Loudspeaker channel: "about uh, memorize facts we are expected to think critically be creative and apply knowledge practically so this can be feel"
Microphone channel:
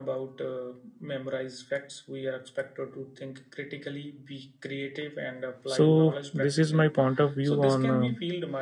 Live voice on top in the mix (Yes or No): Yes